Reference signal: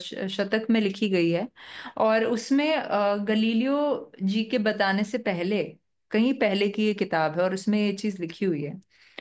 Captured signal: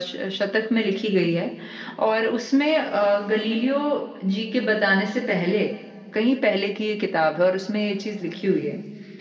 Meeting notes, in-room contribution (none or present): none